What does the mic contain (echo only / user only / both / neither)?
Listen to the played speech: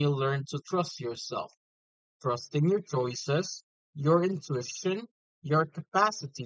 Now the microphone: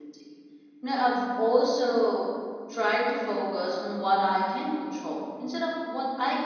user only